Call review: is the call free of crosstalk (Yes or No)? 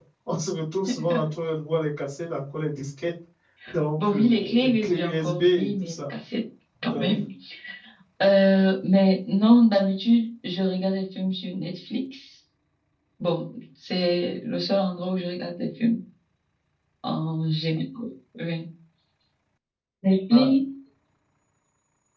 No